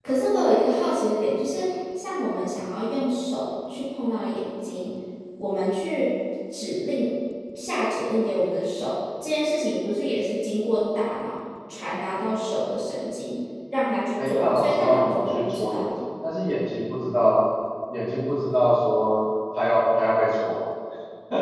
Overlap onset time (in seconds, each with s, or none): 14.2 s